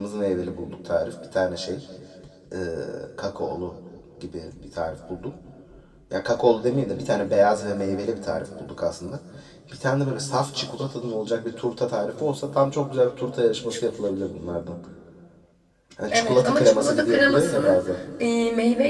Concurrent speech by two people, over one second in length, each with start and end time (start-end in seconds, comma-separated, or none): 16.1-17.8